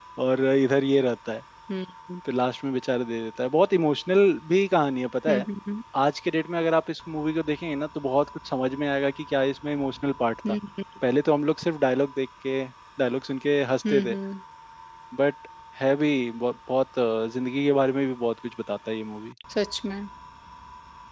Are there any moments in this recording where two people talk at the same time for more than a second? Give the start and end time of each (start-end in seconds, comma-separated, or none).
none